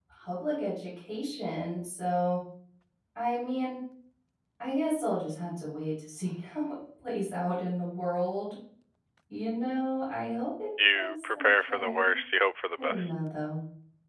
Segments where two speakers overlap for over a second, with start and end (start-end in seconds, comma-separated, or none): 10.9-12.1